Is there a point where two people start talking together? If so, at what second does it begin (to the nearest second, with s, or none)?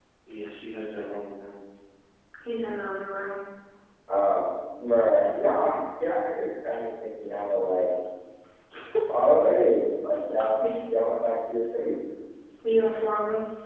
none